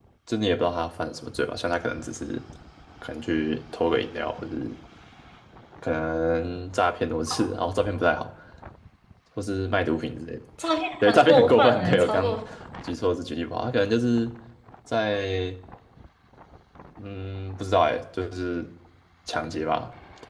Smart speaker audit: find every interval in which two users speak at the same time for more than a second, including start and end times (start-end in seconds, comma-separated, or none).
11.0-12.4